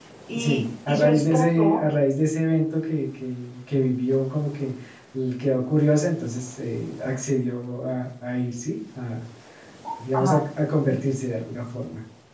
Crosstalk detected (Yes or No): Yes